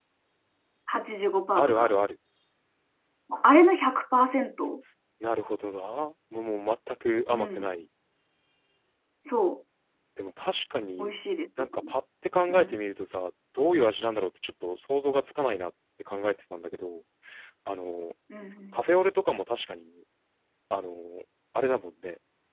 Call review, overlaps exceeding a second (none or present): none